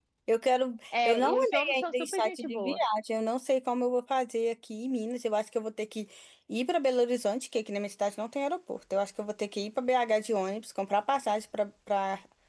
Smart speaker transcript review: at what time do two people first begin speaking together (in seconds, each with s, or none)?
1.0 s